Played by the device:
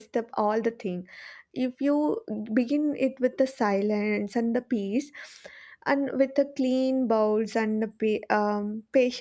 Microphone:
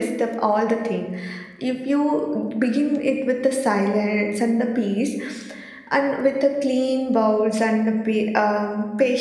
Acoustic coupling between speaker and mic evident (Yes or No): Yes